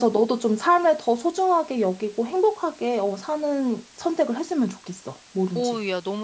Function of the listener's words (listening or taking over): taking over